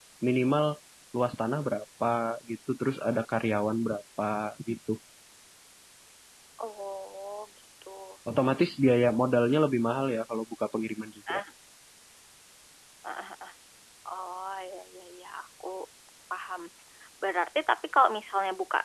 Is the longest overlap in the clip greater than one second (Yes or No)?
No